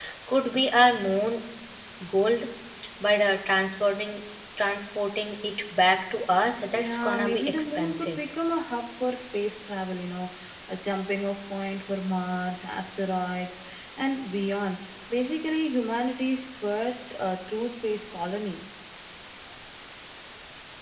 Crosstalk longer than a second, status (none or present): present